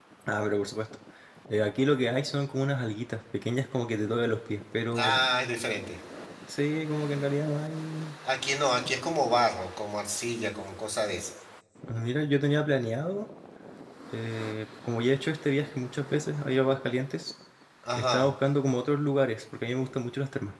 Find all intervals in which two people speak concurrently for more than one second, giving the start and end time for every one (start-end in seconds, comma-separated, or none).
none